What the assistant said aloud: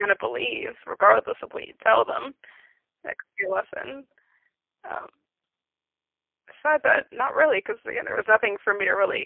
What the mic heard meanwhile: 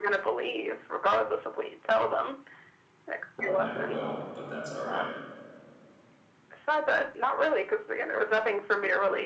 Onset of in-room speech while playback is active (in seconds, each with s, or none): 3.4 s